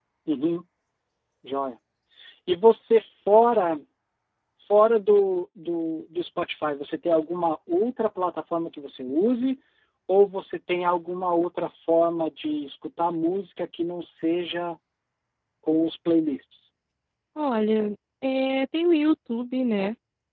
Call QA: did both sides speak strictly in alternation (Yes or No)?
Yes